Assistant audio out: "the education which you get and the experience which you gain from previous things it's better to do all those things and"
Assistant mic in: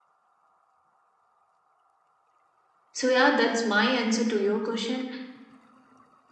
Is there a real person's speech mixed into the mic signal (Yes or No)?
Yes